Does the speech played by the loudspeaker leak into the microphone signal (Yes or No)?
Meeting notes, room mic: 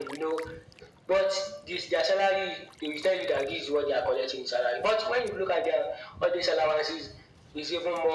Yes